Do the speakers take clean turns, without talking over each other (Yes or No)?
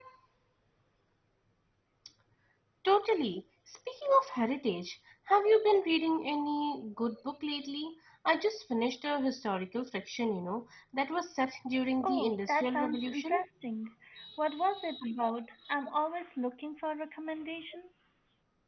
No